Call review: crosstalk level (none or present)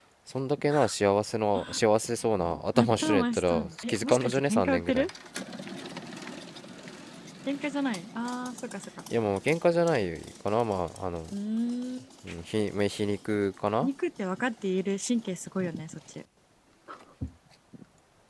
present